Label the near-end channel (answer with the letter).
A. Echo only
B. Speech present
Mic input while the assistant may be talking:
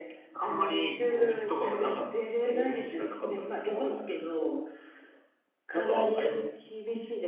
A